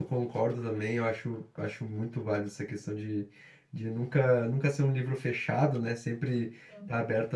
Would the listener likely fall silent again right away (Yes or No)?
Yes